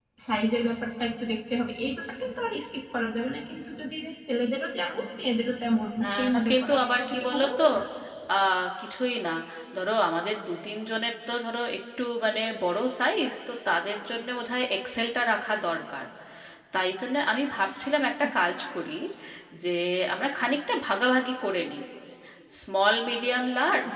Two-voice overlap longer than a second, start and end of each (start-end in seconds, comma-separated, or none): 6.0-7.6